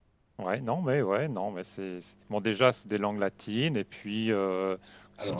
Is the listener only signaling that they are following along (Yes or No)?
Yes